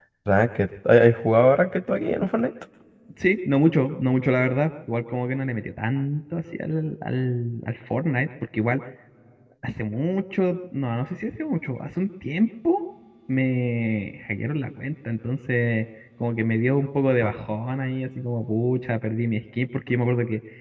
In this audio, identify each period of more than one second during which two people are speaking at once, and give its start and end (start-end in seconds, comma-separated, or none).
none